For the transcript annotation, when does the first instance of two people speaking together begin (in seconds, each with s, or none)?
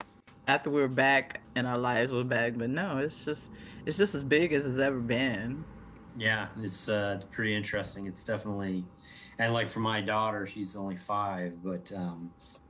none